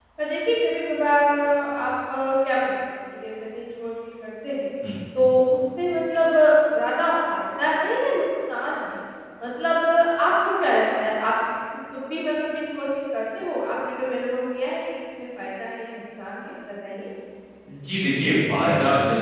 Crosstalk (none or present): none